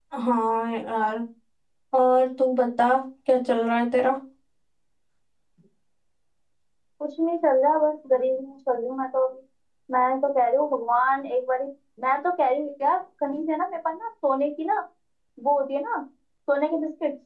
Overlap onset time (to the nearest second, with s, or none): none